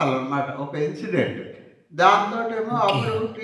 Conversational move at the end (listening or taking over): listening